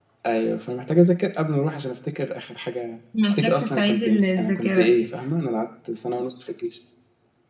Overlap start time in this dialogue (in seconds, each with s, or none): 3.1 s